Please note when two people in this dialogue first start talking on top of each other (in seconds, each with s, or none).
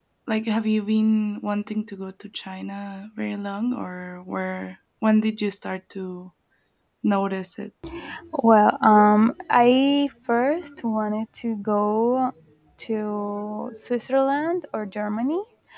none